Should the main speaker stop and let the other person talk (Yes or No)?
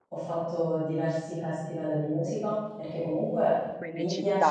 No